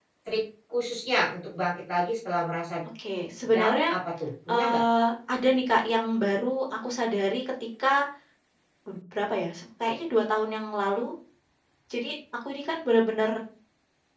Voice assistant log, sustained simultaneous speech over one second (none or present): none